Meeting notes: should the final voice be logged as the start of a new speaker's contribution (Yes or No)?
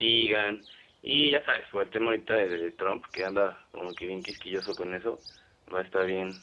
No